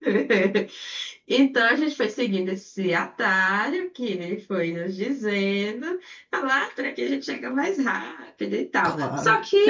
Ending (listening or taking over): taking over